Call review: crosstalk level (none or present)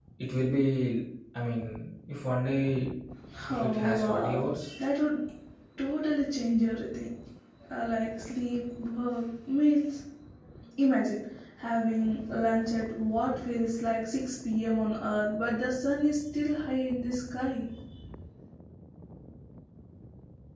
present